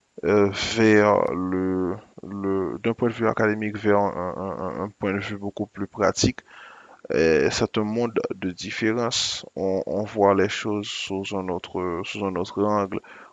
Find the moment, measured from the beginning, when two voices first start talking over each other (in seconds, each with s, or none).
none